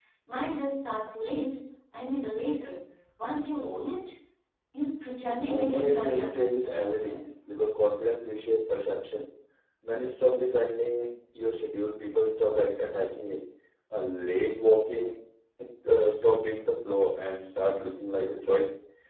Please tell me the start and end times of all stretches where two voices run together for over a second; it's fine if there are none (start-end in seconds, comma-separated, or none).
5.2-7.3